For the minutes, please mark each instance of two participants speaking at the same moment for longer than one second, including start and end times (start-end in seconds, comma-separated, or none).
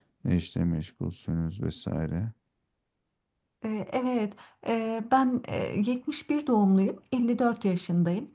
none